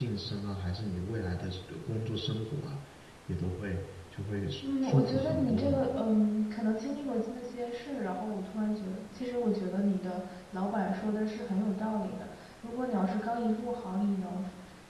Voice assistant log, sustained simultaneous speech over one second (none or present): present